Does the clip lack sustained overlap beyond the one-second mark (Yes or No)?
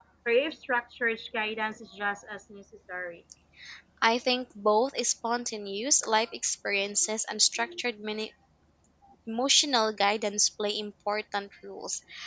Yes